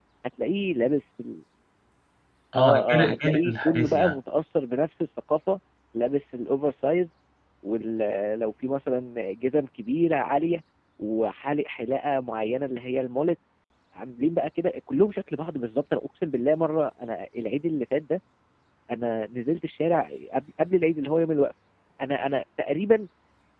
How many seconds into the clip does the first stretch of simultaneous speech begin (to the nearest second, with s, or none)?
3 s